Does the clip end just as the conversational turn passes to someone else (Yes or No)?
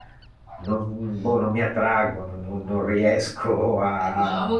Yes